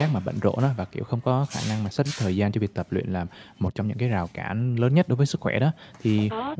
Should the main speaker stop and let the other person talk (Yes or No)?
No